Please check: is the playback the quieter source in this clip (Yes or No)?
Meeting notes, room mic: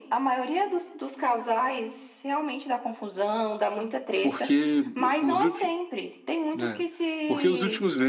Yes